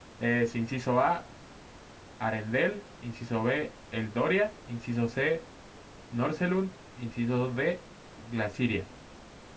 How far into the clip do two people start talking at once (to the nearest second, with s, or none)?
none